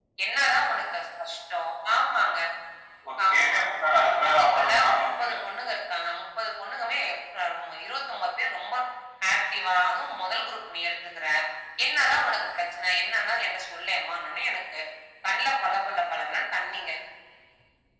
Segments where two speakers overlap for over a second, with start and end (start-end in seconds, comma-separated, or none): 4.1-5.3